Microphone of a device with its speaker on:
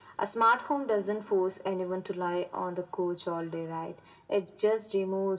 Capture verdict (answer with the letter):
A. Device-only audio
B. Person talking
A